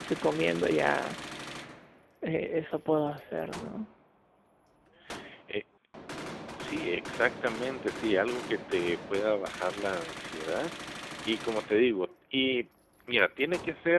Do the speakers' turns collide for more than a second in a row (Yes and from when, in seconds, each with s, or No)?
No